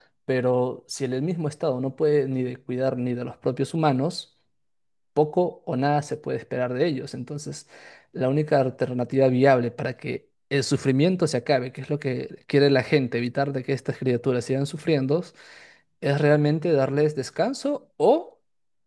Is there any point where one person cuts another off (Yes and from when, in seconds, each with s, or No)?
No